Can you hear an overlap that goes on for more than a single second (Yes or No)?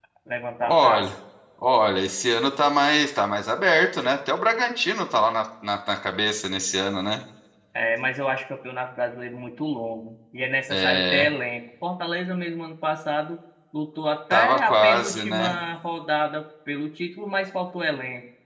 Yes